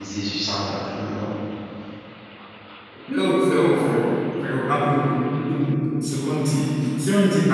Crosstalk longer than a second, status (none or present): none